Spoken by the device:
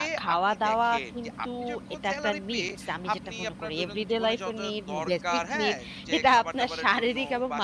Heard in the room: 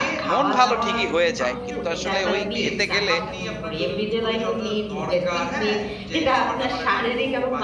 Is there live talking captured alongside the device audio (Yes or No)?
Yes